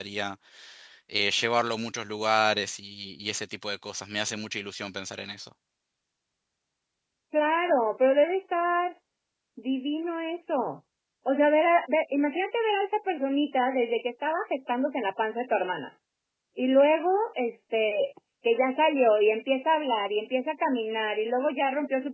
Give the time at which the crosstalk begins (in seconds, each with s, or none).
none